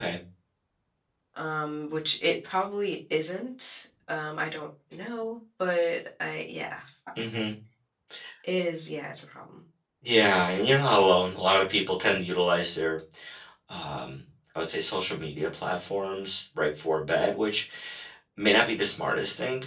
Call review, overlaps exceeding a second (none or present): none